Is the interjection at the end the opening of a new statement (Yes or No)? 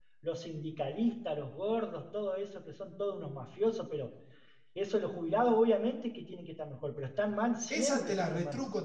Yes